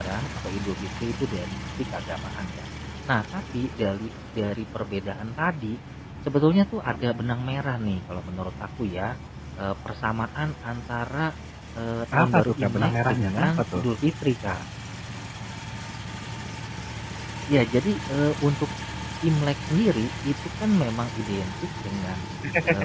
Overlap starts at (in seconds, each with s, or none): 12.2 s